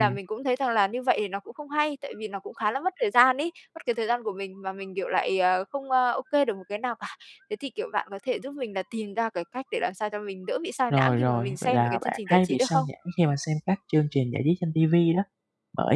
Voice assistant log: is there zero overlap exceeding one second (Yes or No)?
No